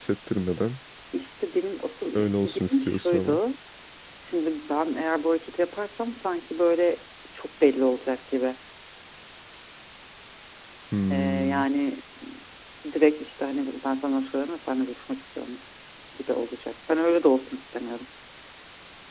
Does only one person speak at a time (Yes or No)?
No